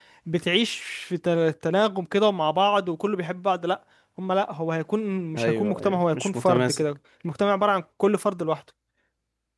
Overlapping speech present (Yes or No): Yes